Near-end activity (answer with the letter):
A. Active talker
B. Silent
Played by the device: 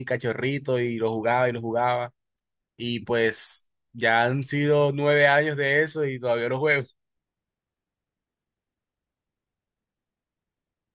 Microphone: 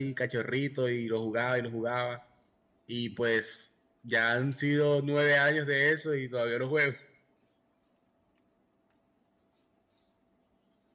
B